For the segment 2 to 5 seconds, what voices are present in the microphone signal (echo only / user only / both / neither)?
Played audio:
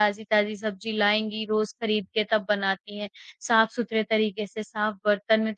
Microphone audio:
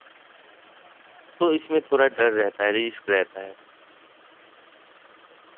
user only